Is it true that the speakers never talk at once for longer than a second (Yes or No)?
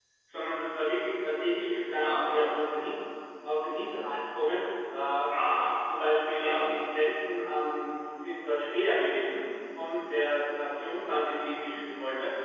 Yes